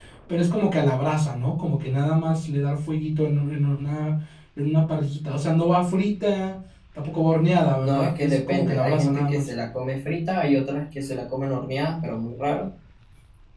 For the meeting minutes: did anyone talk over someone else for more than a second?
Yes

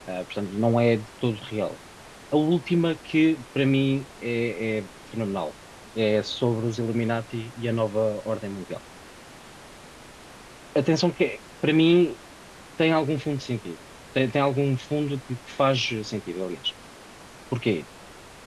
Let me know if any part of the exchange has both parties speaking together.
No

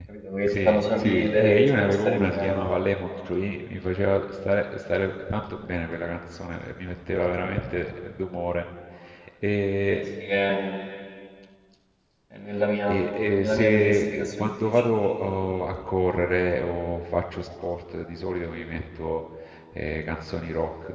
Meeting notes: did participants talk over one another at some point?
Yes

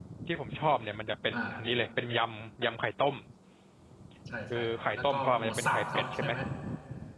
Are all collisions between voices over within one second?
No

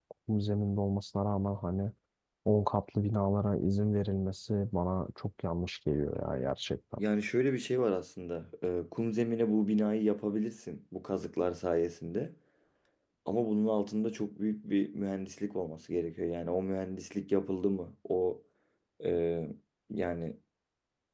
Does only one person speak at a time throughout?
Yes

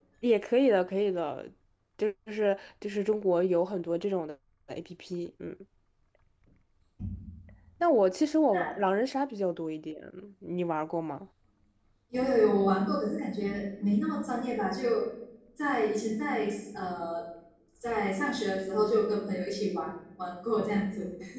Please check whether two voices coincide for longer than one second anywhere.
No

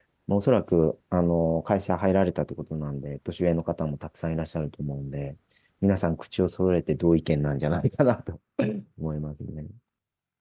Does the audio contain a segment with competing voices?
No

